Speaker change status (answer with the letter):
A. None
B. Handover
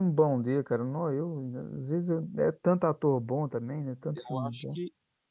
B